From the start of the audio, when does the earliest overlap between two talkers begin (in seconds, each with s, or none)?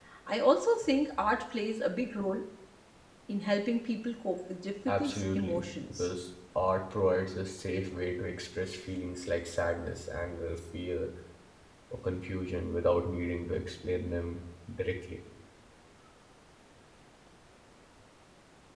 4.9 s